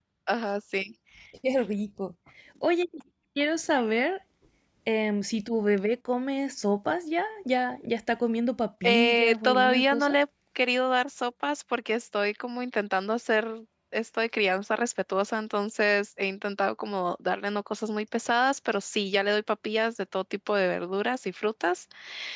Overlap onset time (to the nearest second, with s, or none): 9 s